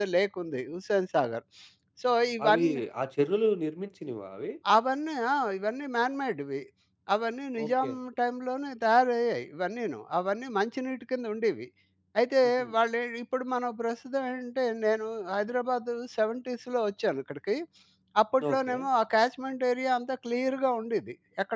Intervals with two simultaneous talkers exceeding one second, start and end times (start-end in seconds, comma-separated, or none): none